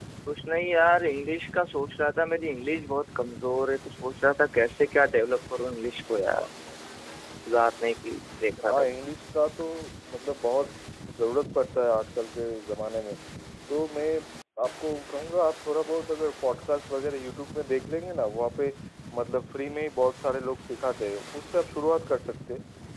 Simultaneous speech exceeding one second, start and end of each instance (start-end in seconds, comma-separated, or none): none